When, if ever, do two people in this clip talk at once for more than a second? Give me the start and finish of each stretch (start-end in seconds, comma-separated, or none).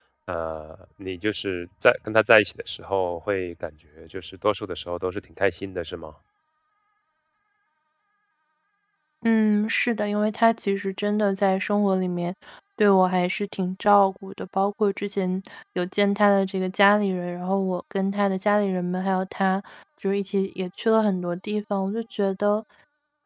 none